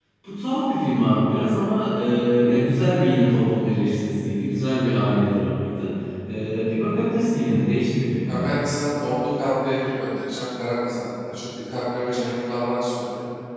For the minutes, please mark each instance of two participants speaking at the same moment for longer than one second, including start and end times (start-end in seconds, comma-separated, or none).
none